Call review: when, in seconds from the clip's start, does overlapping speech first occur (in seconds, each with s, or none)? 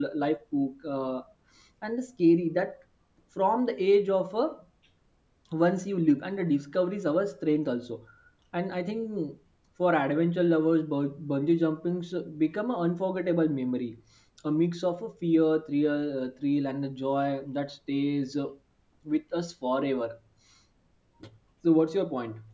none